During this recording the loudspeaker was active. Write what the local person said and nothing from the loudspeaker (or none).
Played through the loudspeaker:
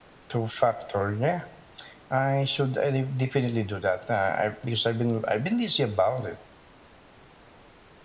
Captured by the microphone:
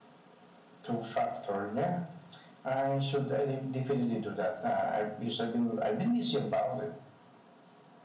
none